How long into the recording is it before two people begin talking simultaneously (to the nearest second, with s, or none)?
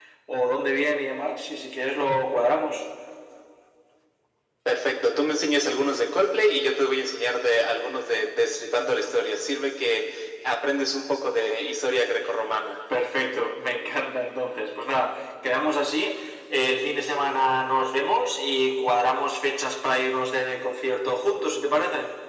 none